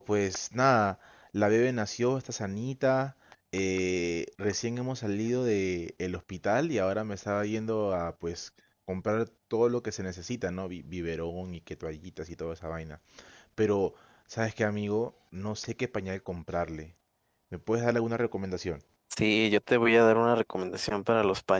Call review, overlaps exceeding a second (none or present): none